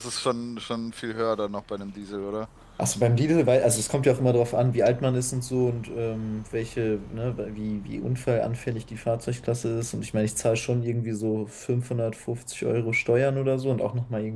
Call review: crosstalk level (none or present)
none